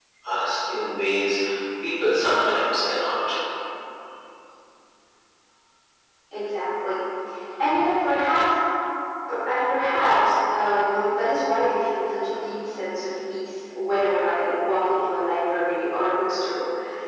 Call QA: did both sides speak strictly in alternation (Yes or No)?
Yes